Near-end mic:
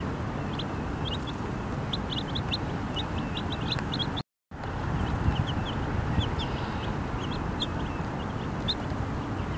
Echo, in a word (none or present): none